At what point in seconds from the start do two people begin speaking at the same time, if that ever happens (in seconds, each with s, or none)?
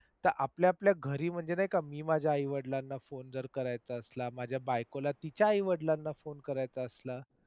none